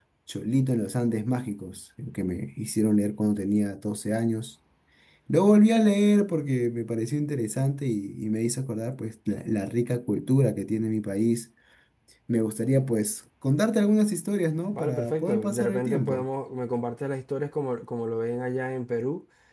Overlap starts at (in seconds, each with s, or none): 14.7 s